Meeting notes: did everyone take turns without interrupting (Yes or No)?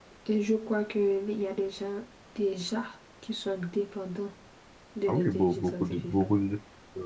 No